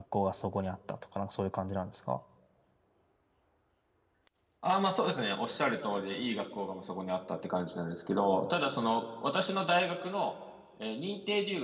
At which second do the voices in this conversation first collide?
none

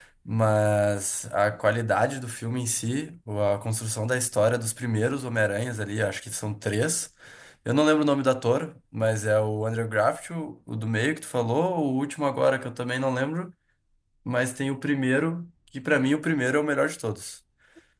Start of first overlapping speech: none

